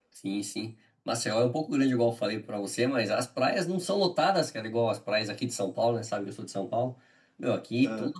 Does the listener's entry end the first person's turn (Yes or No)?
No